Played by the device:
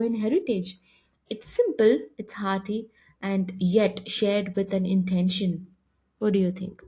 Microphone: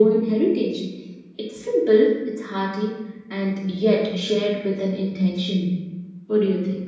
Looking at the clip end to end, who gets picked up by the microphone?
echo only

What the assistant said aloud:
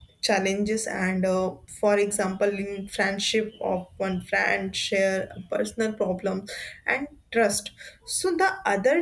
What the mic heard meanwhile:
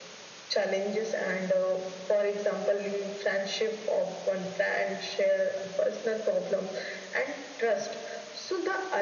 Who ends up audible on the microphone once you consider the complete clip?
echo only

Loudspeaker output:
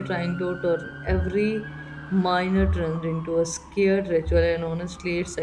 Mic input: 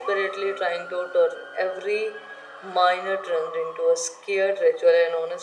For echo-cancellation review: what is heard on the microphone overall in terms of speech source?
echo only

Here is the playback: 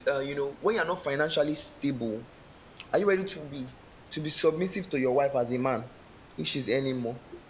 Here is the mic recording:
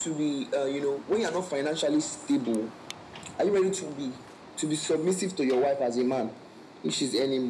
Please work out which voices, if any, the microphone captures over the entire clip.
echo only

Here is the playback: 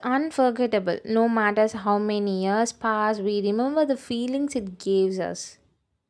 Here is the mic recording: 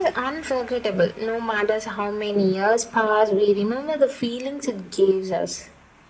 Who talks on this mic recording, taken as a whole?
echo only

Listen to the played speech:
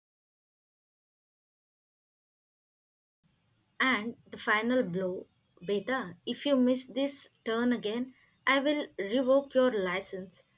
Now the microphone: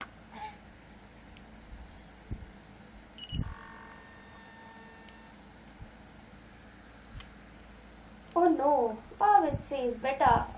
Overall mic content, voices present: user only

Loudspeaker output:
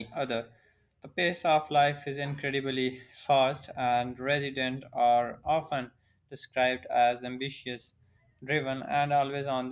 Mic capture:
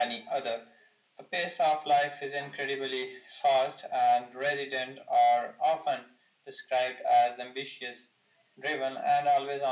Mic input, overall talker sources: echo only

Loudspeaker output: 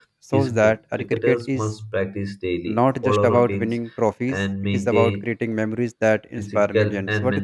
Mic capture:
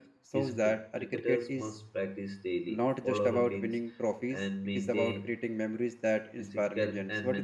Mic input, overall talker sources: echo only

